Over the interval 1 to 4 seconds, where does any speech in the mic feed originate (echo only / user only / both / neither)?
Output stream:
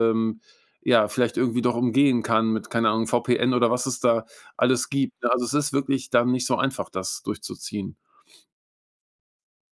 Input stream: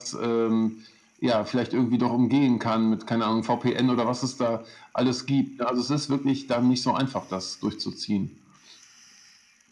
echo only